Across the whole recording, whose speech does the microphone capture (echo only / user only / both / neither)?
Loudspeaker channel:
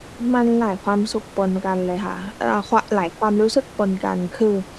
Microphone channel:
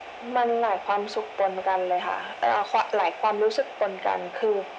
echo only